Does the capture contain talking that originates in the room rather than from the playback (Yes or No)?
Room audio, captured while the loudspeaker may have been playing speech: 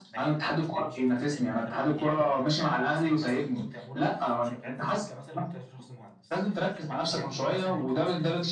Yes